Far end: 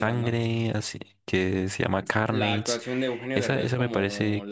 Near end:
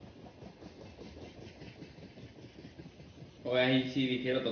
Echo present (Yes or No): No